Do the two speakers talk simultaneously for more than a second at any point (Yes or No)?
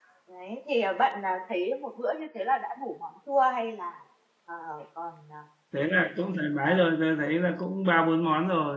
No